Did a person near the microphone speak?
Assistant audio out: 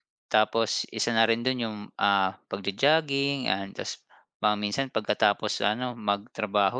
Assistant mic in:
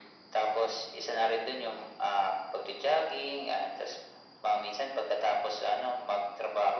No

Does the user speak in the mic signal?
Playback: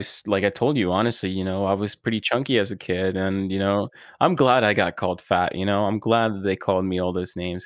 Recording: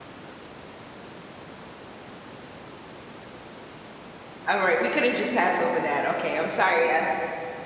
Yes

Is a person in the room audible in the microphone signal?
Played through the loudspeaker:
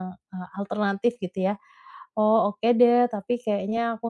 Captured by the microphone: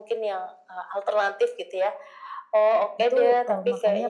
Yes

